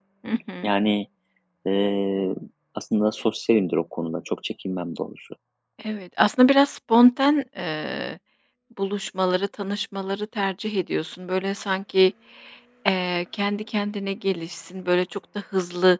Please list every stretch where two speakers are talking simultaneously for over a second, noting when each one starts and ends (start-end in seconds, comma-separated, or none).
none